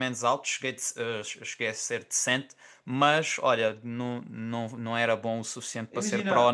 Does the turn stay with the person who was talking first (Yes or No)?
No